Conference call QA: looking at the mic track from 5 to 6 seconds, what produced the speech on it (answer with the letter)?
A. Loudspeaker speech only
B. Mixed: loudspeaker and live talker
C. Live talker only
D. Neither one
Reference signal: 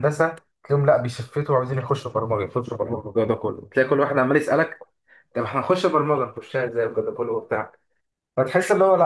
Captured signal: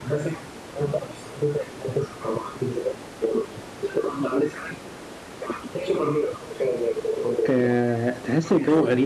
A